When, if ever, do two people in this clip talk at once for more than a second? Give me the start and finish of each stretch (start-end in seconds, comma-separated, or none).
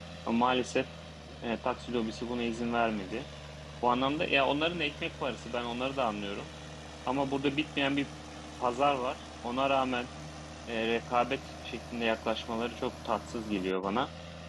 none